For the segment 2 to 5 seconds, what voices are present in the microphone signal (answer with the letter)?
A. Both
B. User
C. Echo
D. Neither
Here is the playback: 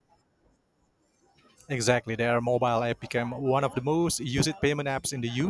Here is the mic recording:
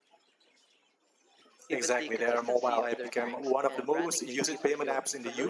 A